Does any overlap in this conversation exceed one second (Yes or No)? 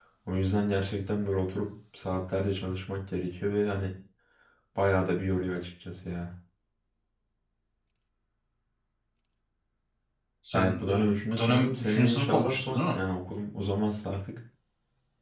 Yes